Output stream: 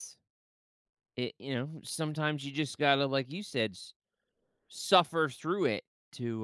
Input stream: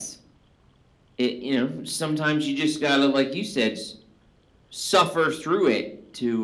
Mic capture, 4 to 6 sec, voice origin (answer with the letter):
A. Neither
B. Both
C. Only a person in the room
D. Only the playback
D